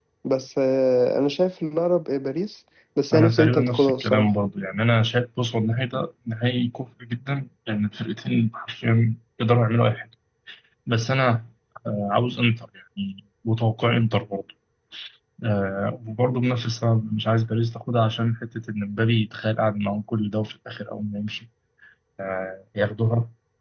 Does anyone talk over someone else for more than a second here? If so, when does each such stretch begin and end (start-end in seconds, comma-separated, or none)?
3.1-4.3